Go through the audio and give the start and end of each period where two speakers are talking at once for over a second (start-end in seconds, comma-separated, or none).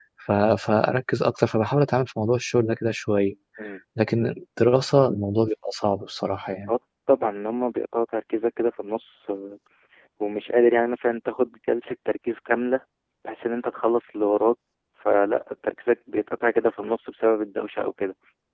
none